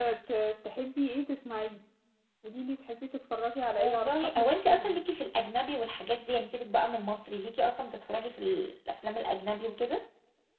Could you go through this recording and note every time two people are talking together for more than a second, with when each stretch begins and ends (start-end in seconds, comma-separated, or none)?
3.8-5.0